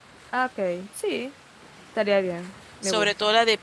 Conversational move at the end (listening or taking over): taking over